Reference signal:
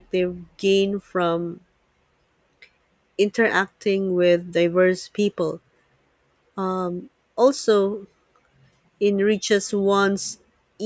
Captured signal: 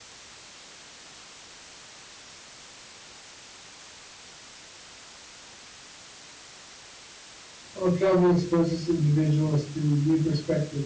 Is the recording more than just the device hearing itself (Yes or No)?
Yes